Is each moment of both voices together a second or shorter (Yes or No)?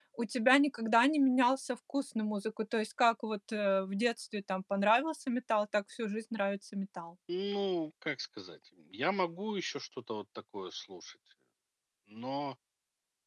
Yes